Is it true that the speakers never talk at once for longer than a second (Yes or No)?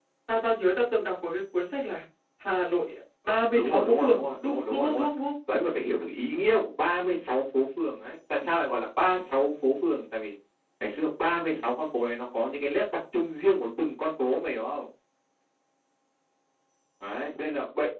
No